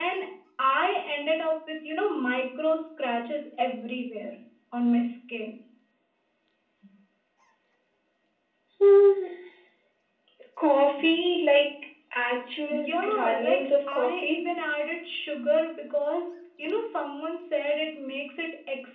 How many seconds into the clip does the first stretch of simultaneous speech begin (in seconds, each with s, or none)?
12.7 s